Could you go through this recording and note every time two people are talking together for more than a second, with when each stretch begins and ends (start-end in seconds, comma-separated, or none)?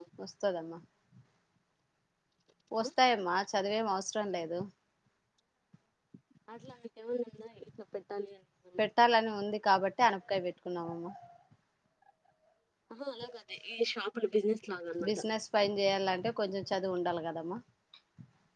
none